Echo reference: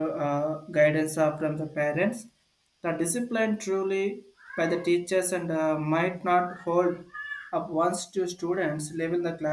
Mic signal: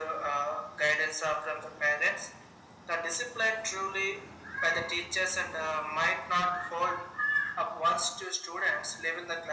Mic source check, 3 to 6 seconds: echo only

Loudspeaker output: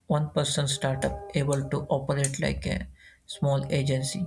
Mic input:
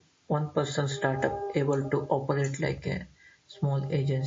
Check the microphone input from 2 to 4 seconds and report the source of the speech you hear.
echo only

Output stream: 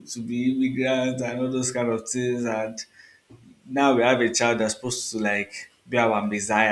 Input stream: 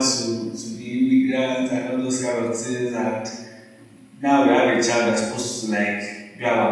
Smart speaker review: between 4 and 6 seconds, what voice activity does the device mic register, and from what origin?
echo only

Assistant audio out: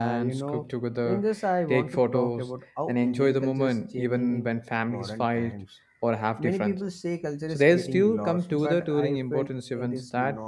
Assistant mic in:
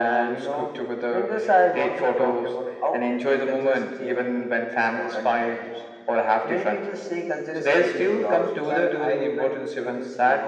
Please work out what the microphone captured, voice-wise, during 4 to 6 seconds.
echo only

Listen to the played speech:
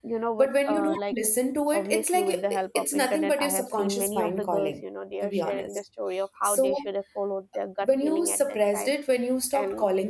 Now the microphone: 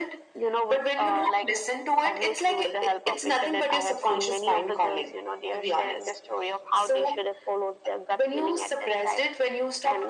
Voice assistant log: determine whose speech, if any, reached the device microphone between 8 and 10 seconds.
echo only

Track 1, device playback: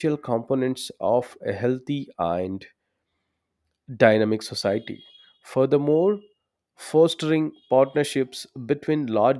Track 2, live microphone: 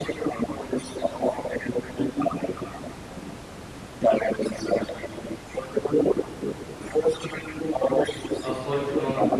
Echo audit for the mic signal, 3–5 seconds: echo only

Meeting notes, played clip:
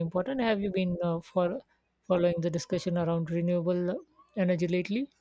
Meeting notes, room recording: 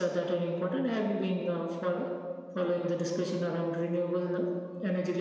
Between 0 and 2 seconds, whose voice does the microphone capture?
echo only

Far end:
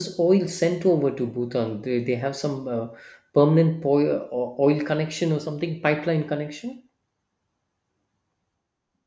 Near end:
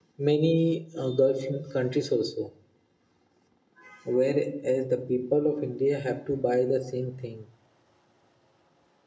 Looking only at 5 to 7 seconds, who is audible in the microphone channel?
user only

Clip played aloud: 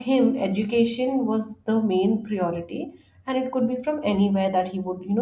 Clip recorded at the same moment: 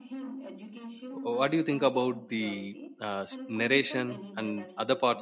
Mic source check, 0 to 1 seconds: echo only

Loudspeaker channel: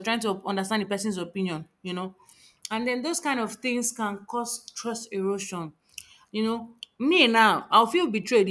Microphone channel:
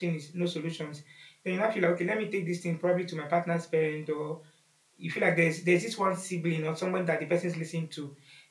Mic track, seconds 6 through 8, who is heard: user only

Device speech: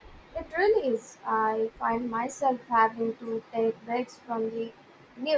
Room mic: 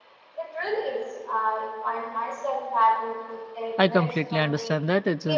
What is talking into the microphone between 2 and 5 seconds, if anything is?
both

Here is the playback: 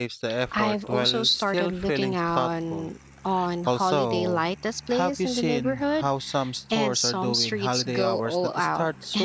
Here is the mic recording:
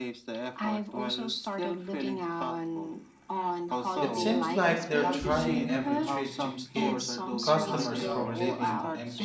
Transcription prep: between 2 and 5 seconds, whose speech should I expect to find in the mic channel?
both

